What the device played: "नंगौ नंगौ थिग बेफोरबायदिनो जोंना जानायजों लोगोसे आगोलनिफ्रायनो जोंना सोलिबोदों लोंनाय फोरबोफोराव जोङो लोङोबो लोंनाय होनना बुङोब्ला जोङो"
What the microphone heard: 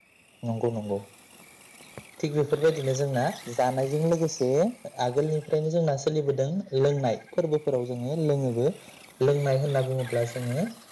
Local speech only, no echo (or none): none